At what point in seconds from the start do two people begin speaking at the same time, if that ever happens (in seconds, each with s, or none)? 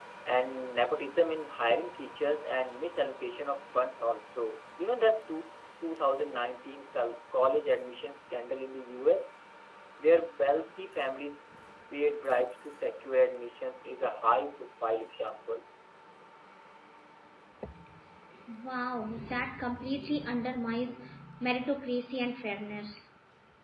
none